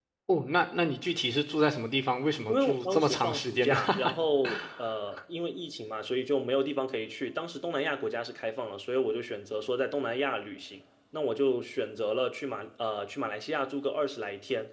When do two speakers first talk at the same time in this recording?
2.5 s

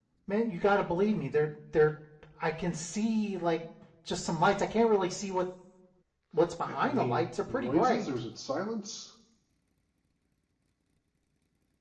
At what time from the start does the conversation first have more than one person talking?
6.8 s

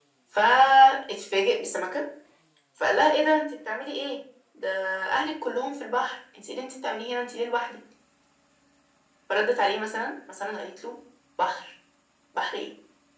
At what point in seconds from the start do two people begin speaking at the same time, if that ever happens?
none

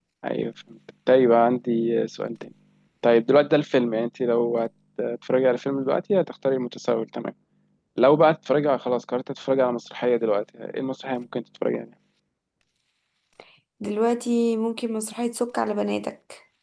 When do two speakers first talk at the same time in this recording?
none

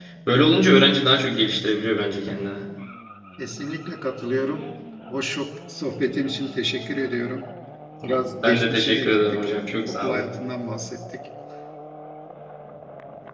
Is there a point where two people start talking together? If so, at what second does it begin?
8.0 s

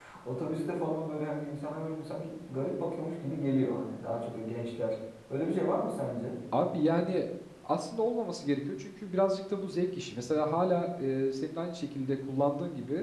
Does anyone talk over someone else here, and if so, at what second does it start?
none

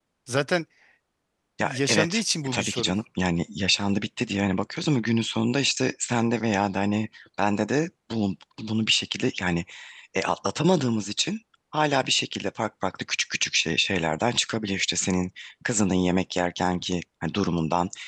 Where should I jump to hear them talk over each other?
1.6 s

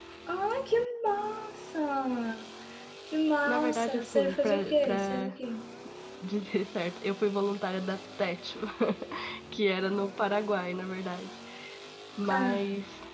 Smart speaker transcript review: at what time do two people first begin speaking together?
3.5 s

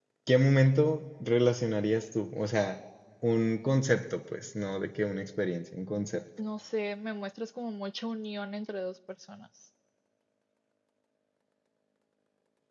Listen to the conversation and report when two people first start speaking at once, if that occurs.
none

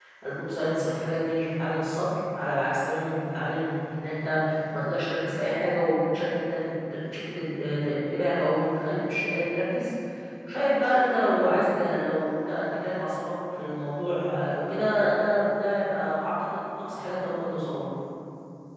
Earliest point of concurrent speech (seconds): none

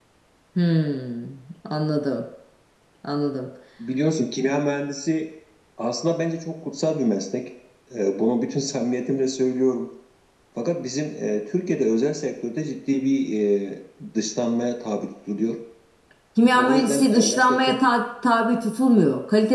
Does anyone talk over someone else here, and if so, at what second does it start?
16.5 s

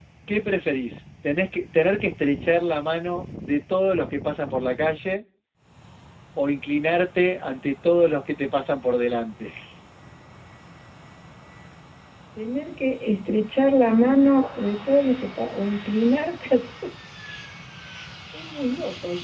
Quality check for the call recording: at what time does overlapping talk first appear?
none

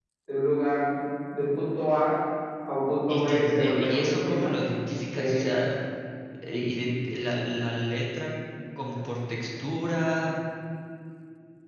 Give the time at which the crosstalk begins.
3.1 s

